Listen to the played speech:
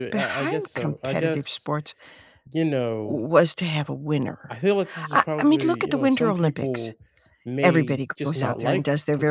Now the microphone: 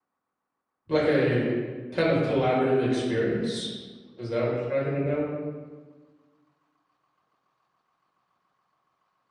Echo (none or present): none